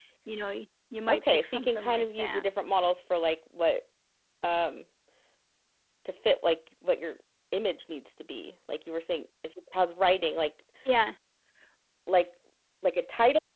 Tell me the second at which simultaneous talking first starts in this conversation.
1 s

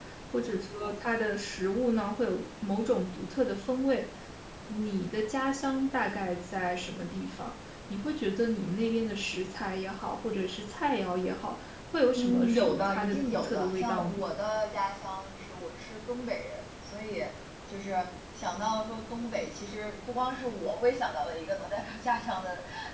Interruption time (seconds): 12 s

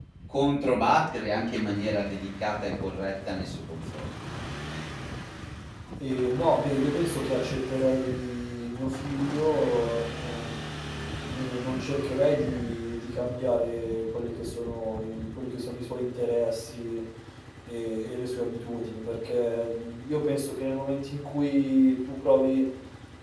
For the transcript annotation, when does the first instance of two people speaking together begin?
none

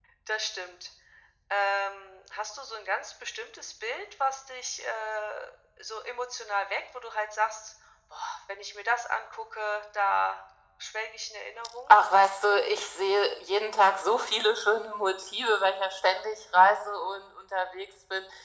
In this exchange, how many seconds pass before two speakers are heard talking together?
none

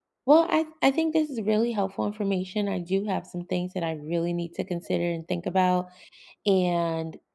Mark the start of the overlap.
none

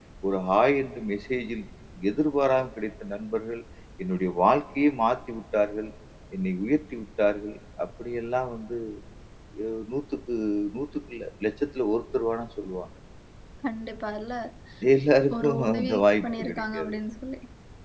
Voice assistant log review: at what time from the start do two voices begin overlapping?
15 s

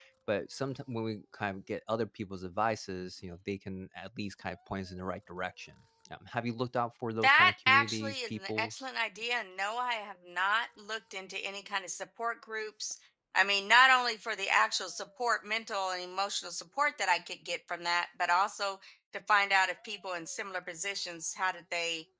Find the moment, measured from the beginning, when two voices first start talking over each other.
7 s

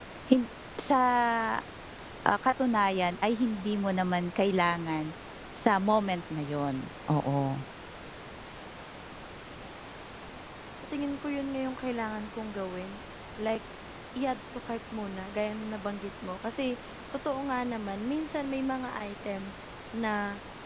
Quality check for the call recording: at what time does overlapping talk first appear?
none

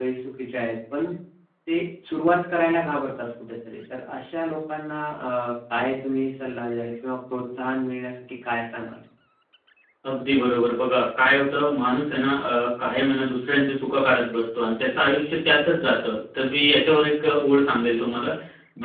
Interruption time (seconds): none

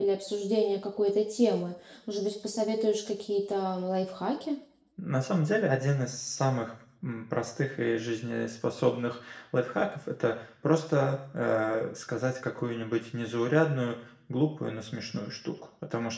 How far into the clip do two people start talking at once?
none

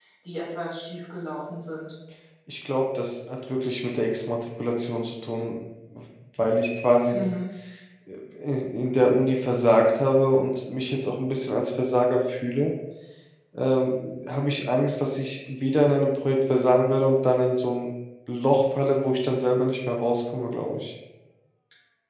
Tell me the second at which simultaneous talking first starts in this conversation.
none

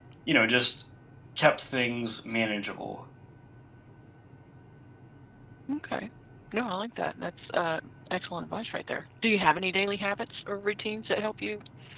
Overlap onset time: none

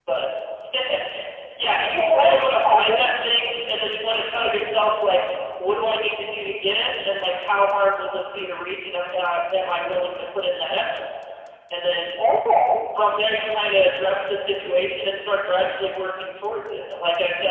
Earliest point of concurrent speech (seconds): 2 s

